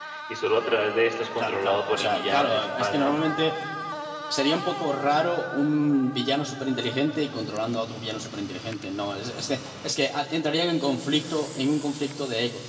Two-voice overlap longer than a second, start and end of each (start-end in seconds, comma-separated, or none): 1.4-3.1